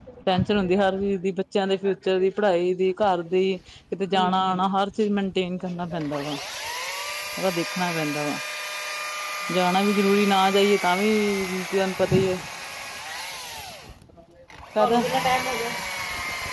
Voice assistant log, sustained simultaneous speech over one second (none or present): none